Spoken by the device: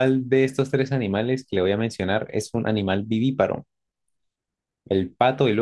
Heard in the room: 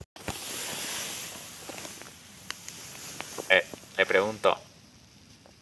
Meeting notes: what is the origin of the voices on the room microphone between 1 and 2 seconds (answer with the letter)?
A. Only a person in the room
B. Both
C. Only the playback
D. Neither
D